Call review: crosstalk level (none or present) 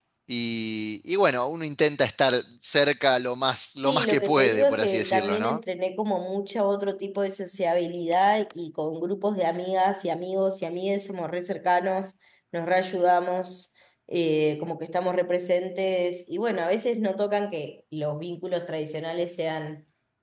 present